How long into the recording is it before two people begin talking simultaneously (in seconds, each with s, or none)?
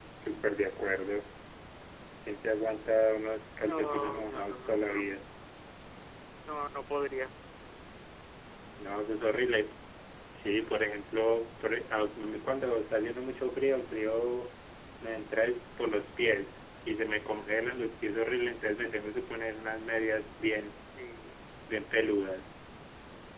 3.6 s